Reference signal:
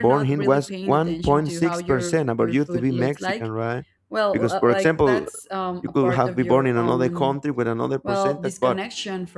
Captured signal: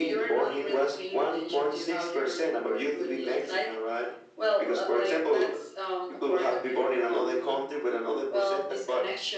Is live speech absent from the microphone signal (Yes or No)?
Yes